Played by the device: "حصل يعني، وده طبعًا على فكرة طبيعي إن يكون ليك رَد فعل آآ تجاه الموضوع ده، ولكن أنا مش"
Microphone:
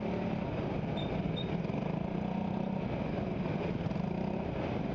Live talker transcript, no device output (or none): none